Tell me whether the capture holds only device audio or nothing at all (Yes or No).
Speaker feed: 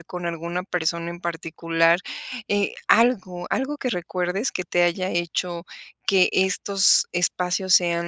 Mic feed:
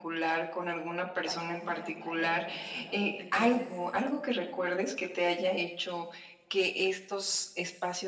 No